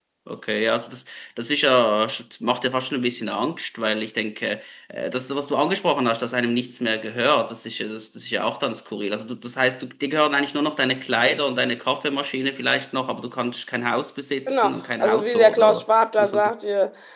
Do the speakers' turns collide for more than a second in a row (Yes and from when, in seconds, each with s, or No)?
Yes, from 14.5 s